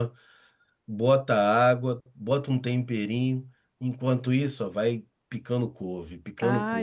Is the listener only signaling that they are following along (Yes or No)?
No